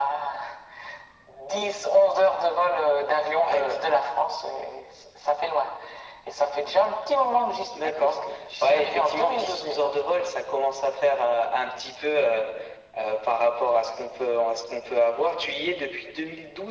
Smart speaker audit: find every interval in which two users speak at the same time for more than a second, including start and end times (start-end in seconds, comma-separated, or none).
8.6-10.1